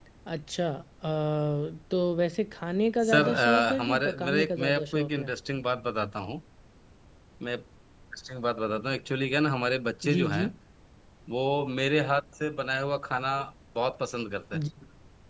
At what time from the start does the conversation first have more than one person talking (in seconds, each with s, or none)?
3.0 s